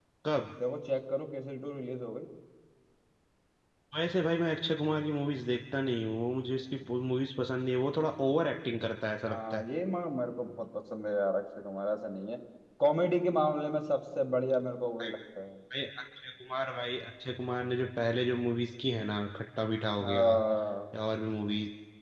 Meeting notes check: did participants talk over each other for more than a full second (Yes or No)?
No